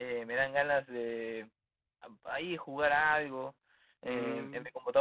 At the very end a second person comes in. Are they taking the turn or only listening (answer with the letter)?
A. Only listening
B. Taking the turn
A